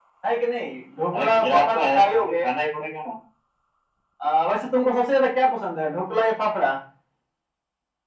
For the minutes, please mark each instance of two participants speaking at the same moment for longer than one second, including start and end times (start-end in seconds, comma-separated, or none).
1.1-2.3